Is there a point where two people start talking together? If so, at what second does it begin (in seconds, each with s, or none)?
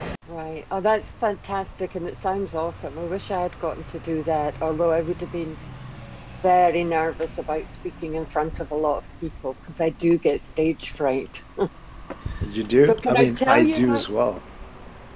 12.8 s